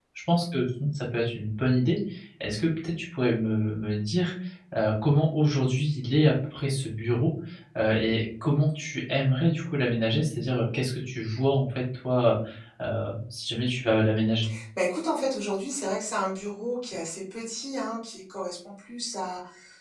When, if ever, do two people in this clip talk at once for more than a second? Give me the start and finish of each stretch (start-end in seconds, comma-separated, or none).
none